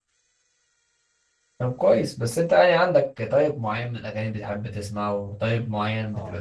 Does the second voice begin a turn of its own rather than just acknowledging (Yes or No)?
No